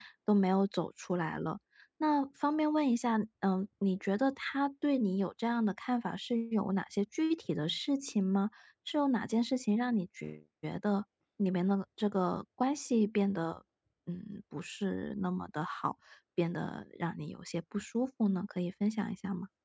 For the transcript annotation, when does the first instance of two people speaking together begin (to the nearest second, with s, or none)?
none